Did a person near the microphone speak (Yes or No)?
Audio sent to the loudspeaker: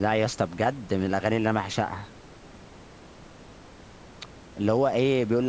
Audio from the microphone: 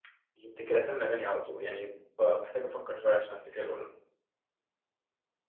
Yes